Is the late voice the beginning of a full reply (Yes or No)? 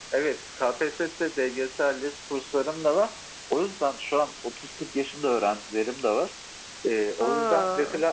No